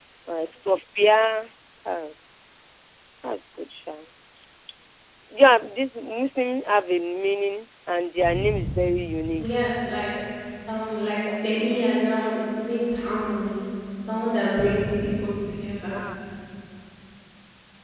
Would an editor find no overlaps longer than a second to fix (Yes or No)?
Yes